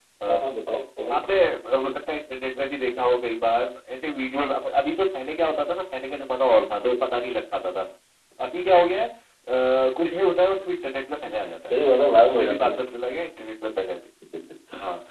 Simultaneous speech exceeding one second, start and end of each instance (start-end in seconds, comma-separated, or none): none